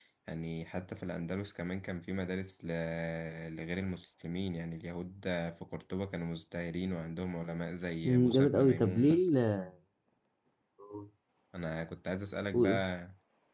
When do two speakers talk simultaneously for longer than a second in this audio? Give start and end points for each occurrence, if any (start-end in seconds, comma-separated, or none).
8.0-9.3